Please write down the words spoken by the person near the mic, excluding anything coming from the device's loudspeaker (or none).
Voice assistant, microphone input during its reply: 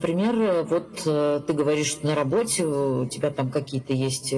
none